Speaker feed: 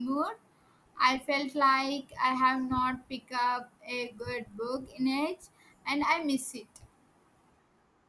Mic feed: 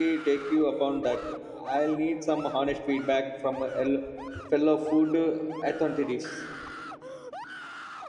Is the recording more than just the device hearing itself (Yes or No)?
Yes